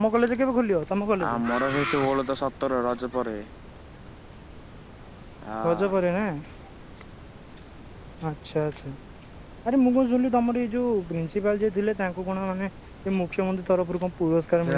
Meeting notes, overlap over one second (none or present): none